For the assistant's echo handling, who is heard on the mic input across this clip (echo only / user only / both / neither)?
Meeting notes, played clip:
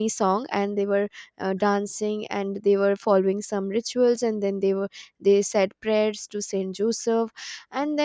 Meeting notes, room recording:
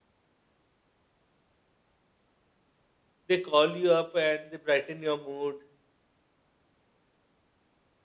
user only